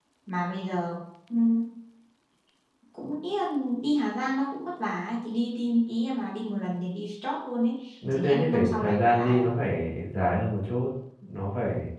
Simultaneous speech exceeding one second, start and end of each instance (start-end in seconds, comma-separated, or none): 8.1-9.5